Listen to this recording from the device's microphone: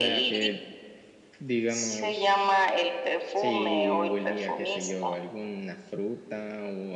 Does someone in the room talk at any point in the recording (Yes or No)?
Yes